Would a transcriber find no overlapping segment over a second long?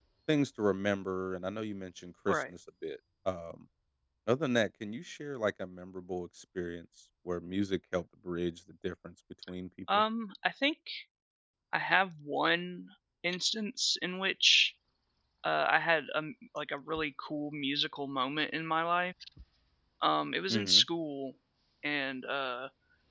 Yes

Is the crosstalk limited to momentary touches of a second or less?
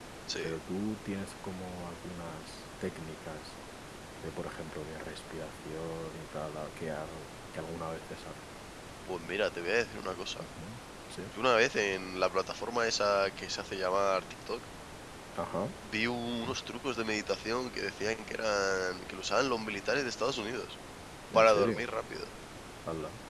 Yes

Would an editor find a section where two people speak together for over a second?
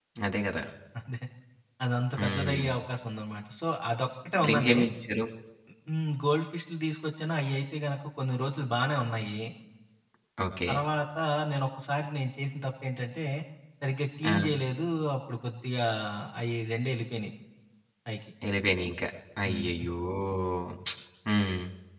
No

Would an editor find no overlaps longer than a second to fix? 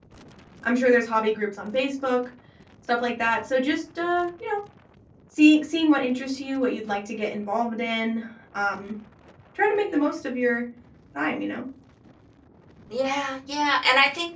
Yes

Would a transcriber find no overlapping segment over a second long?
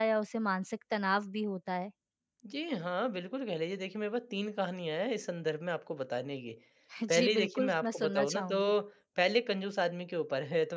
No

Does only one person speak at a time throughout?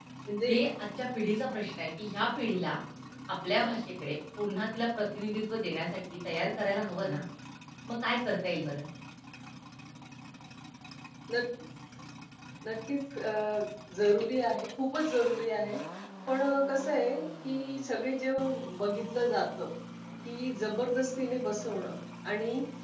Yes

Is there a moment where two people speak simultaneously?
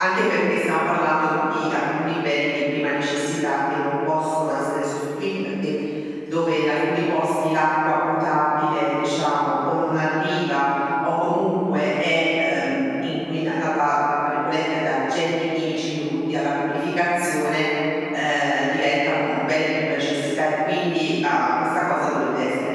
No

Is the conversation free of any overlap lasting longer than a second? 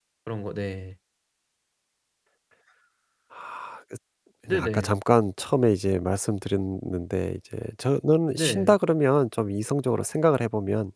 Yes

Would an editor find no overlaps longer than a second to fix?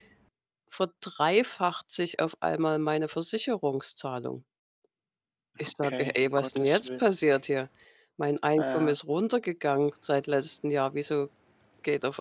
No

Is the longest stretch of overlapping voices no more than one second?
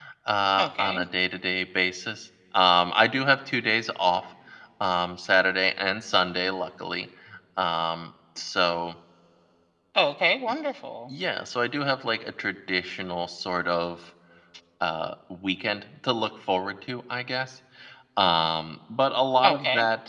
Yes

